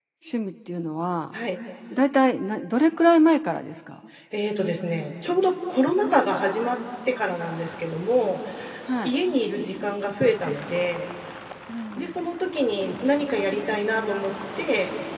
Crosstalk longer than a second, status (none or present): none